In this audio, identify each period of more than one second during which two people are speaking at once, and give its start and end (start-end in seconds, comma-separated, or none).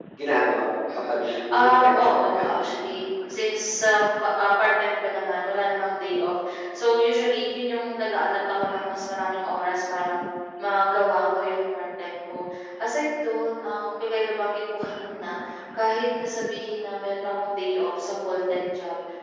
1.1-2.4